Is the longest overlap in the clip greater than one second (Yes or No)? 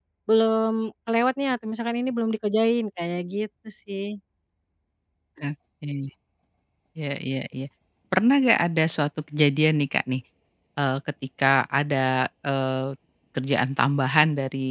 No